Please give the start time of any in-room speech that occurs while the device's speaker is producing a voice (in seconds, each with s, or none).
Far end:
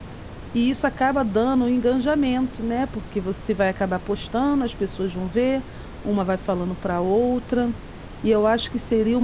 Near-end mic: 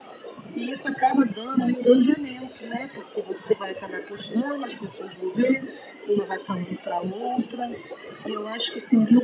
none